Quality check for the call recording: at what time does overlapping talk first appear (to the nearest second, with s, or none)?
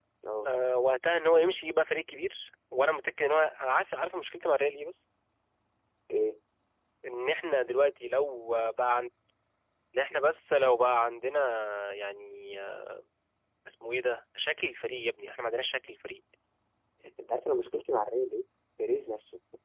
none